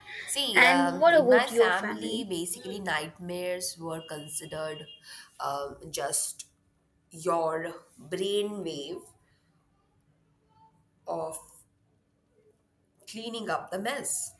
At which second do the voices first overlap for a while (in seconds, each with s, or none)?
0.6 s